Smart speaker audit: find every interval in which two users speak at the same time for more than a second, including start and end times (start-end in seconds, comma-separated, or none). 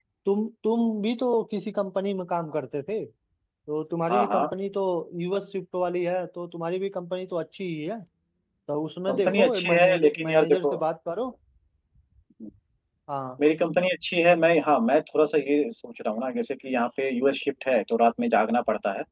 9.1-10.8